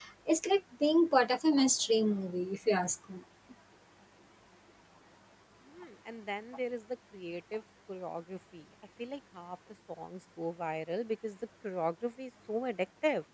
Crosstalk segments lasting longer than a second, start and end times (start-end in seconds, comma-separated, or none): none